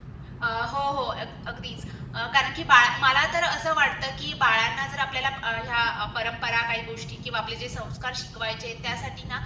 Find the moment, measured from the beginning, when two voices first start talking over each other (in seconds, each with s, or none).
none